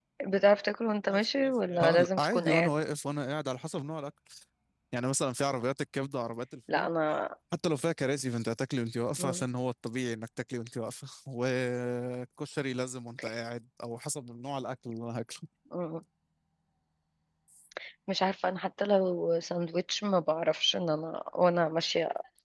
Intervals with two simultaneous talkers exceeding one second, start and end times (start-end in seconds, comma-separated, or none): 1.1-2.7